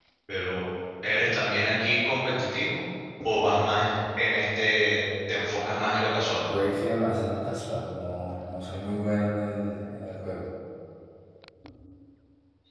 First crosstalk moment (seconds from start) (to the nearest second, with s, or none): none